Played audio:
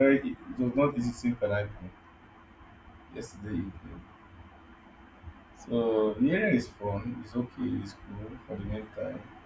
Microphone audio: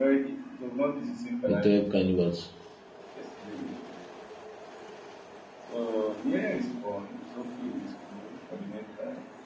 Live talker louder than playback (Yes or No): Yes